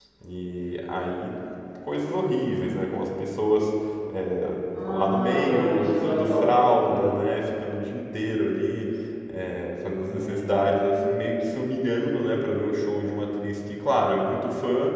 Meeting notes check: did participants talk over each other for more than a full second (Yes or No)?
Yes